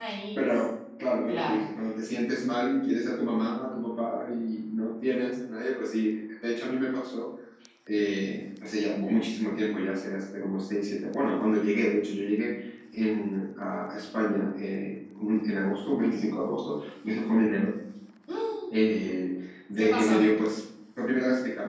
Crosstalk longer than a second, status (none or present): none